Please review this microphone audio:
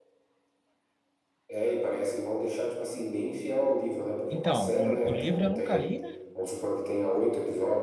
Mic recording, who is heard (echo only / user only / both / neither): both